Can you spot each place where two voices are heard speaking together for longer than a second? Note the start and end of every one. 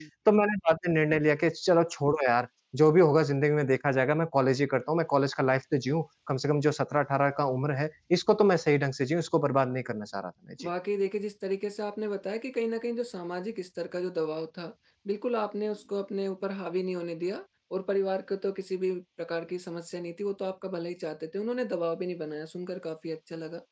none

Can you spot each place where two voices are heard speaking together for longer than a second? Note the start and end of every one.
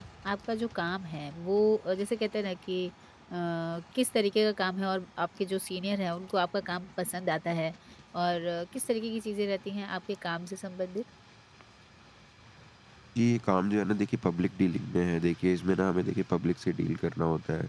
none

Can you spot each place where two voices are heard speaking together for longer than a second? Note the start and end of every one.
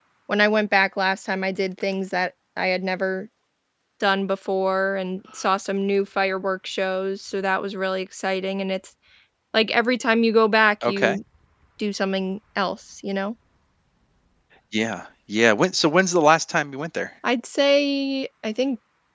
none

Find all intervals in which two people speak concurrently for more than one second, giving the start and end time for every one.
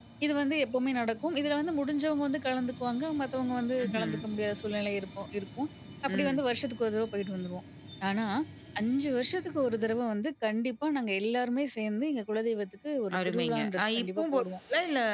13.2-14.4

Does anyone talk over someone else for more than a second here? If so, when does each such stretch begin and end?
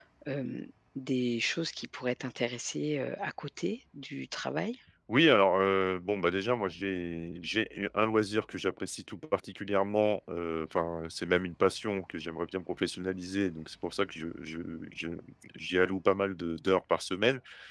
none

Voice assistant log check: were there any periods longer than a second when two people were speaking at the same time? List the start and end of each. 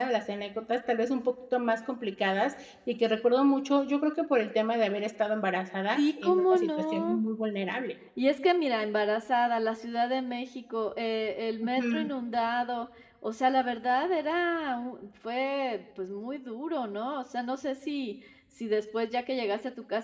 6.0-7.2

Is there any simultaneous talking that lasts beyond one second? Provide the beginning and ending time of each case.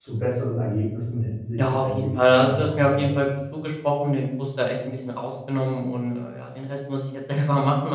1.6-3.1

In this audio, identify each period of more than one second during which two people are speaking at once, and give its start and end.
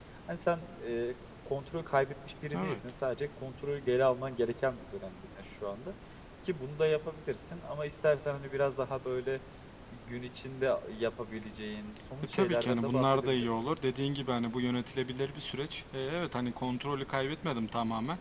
12.2-13.4

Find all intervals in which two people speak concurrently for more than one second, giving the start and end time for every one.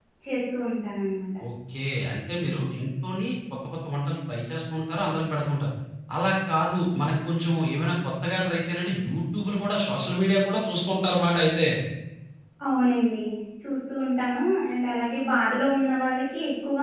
none

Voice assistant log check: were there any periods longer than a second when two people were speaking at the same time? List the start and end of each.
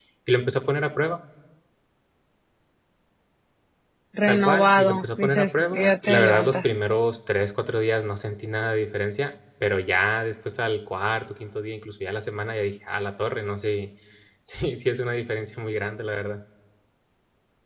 4.2-6.7

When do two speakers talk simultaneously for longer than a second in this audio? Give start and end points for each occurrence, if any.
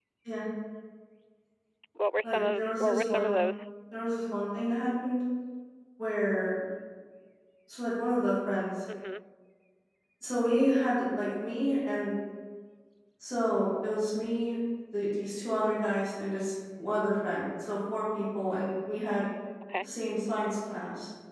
2.2-3.4

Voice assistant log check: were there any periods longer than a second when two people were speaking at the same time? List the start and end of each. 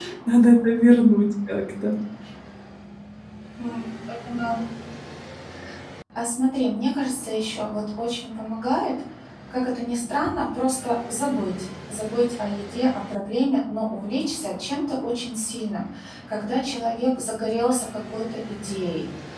none

